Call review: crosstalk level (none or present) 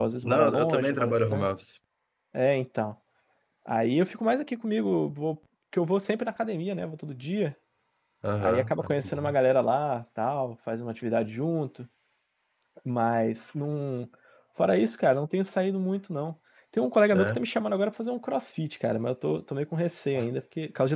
present